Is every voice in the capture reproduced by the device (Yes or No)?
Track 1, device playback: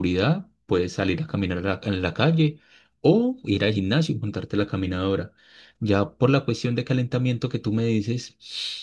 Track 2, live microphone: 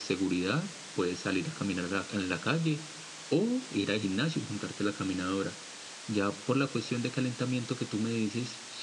Yes